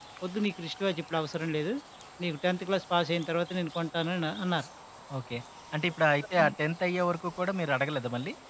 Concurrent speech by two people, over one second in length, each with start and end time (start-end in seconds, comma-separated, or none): none